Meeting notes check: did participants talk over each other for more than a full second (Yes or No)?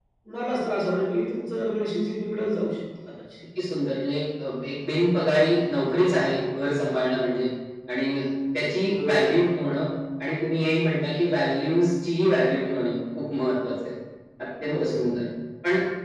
No